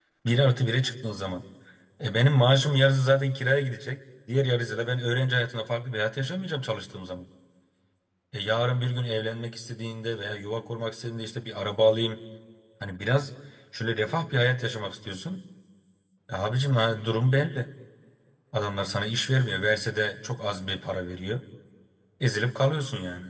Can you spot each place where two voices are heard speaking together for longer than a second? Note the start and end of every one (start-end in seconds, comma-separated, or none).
none